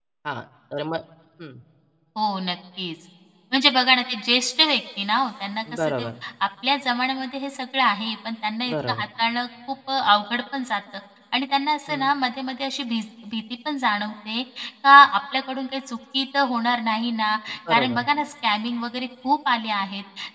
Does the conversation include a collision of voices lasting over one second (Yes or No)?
No